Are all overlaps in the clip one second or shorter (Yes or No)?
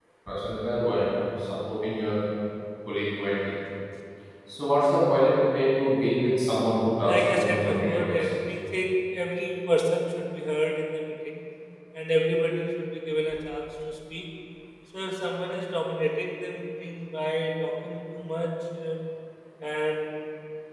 No